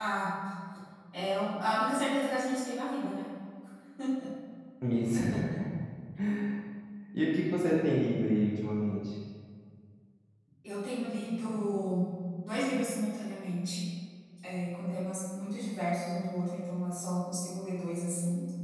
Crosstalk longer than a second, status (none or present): none